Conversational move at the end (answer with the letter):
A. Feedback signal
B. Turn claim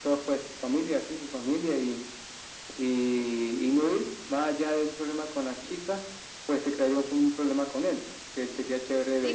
B